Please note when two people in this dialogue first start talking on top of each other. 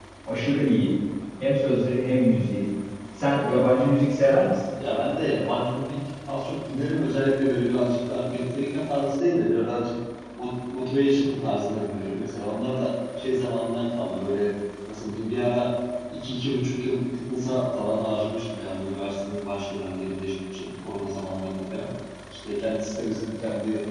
none

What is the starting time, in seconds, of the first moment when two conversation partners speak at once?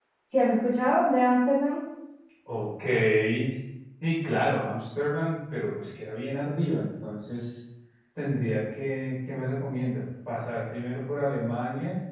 none

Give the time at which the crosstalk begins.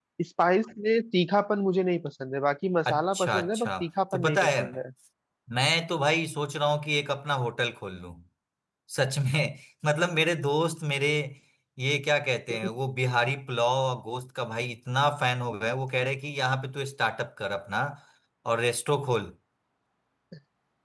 2.8 s

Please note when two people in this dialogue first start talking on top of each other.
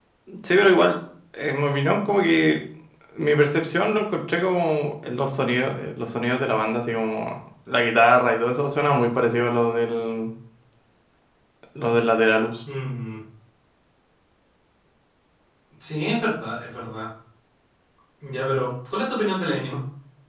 none

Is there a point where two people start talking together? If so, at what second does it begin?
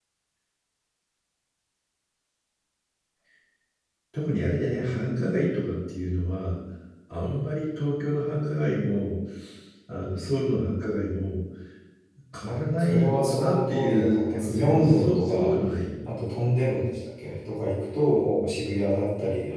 12.4 s

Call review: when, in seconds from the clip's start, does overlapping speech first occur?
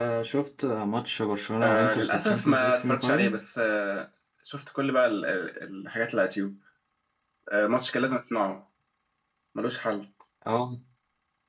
1.6 s

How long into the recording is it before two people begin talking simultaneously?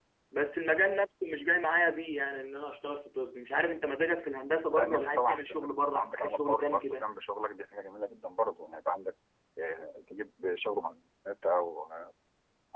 4.7 s

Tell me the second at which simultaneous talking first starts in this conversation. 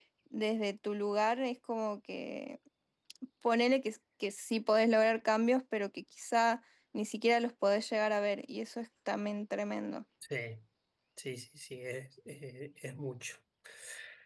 none

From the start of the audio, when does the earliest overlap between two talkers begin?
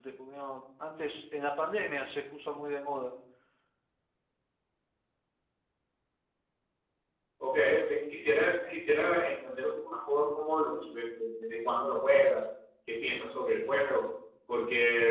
none

